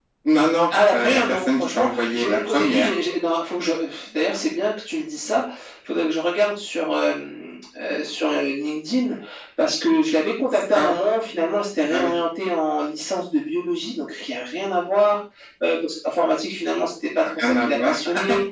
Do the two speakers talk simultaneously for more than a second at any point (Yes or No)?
Yes